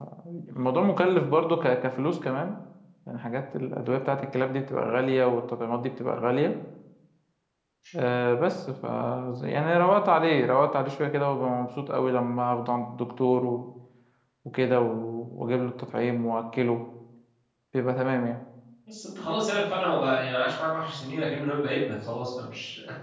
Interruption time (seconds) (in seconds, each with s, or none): none